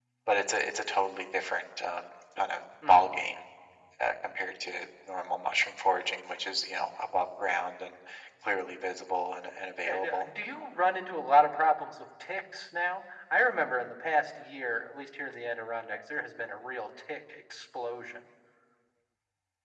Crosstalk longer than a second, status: none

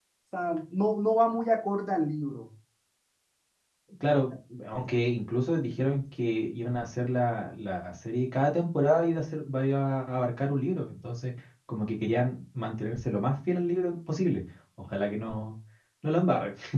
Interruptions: none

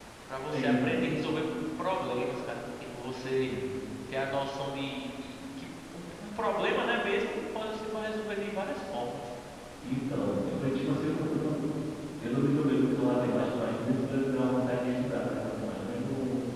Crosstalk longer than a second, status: none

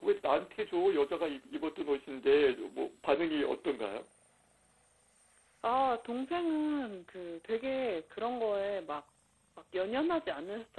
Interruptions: none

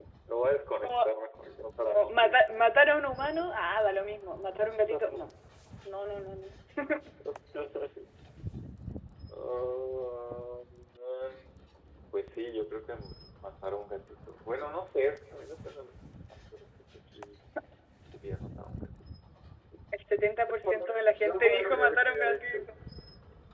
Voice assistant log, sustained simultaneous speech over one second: present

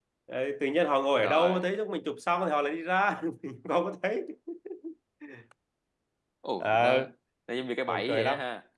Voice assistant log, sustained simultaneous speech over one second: none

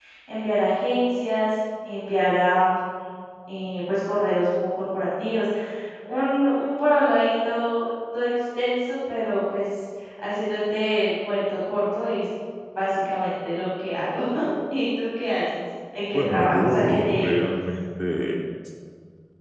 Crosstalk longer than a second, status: present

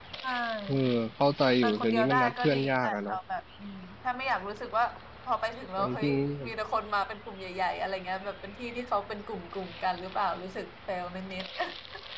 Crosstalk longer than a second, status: present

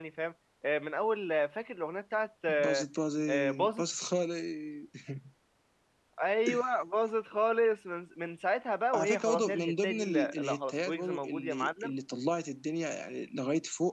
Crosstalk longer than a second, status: present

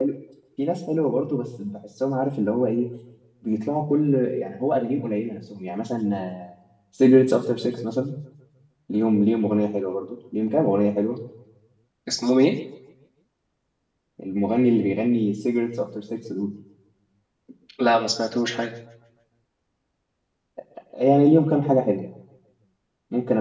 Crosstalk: none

